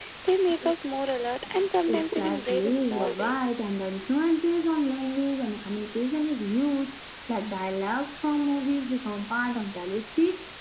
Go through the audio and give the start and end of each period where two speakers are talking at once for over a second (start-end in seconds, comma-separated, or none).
1.9-3.4